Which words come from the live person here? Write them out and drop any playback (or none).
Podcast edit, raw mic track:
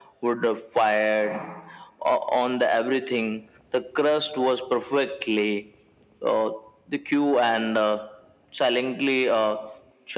none